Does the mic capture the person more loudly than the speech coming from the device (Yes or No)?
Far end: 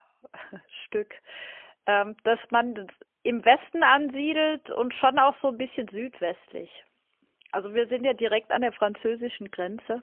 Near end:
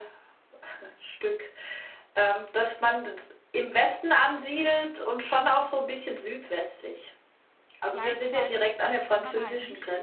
No